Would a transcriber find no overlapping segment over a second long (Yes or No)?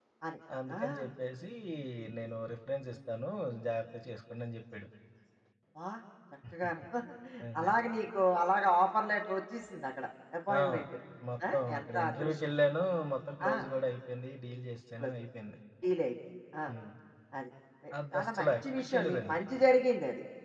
No